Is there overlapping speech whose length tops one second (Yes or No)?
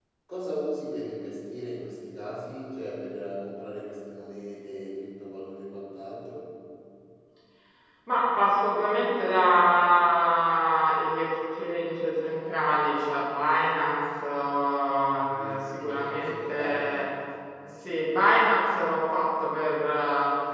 Yes